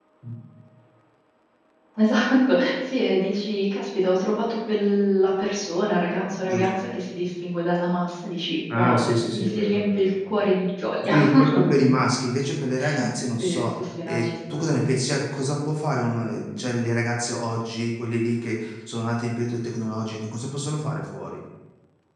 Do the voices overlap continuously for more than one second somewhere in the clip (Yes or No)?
Yes